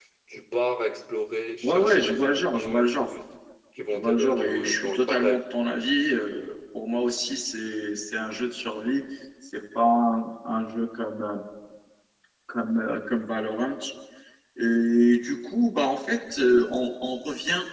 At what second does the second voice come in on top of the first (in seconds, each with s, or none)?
1.6 s